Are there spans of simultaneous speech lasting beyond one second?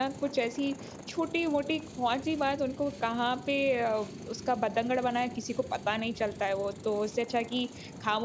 No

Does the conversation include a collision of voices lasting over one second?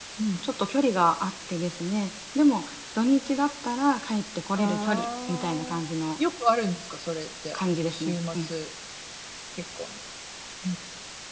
Yes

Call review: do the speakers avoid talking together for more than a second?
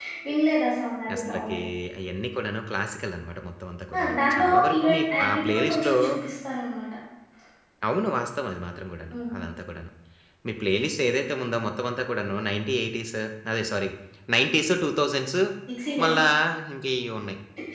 No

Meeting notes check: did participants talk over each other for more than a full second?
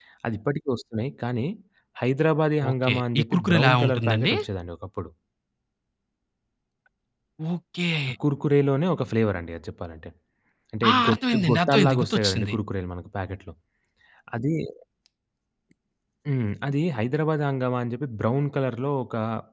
Yes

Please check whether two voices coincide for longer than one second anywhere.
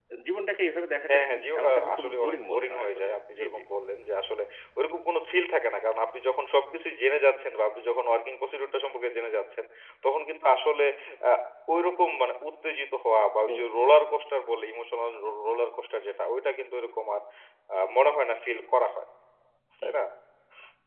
Yes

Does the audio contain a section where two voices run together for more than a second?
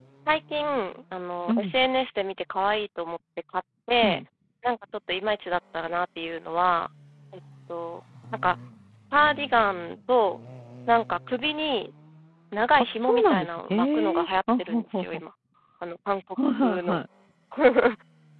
Yes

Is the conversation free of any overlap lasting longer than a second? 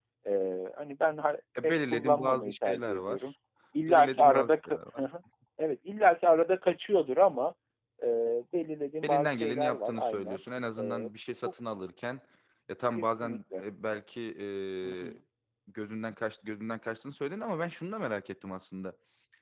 No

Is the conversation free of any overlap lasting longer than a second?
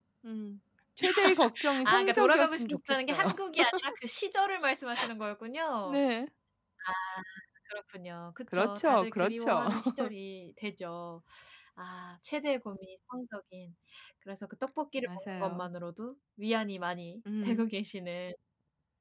No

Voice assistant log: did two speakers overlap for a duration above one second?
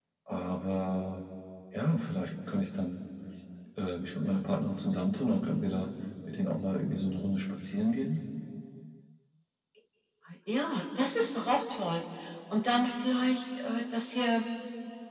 No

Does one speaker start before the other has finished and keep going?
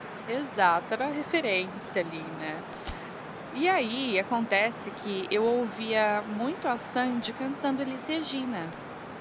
No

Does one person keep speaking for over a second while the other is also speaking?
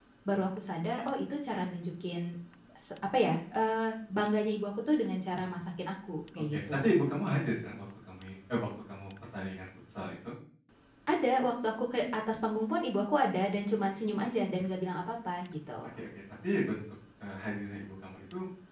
No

